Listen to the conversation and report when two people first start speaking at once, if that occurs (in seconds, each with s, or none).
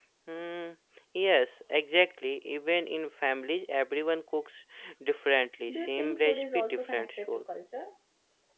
5.7 s